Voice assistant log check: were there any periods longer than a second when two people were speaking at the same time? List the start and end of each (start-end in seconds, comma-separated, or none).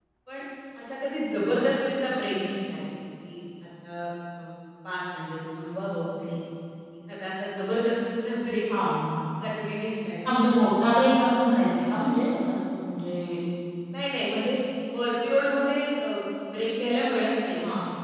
none